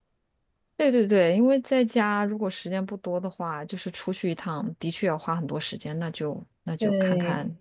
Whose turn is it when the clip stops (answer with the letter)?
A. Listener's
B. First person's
A